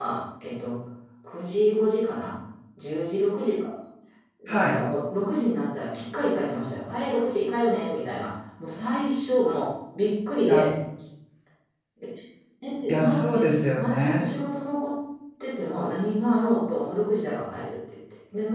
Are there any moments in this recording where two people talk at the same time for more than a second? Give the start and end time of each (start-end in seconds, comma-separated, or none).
12.9-14.2